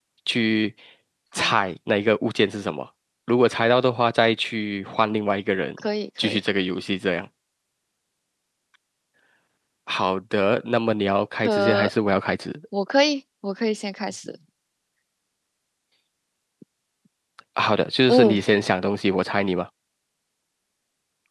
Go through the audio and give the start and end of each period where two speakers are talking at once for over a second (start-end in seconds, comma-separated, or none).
none